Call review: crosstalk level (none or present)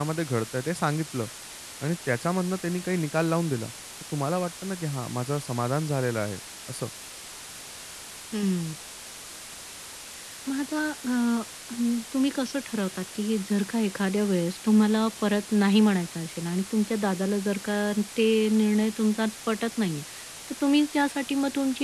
none